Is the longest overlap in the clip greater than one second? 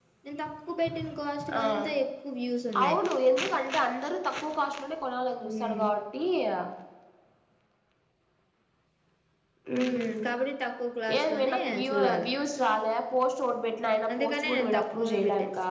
Yes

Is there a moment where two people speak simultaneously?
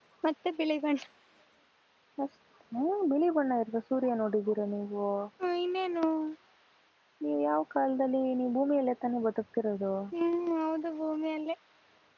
No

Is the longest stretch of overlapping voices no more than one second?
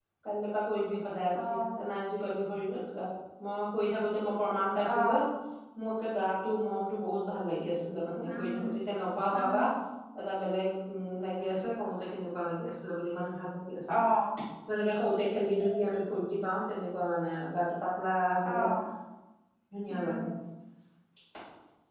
Yes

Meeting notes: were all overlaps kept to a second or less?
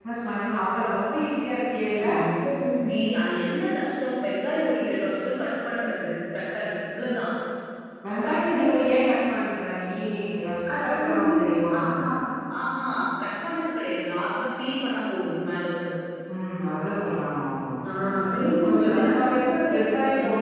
No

